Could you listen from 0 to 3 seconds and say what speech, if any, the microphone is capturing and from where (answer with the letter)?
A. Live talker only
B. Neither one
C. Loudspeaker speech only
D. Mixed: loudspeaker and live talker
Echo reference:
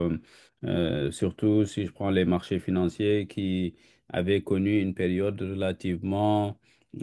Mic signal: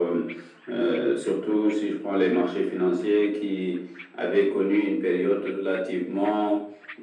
C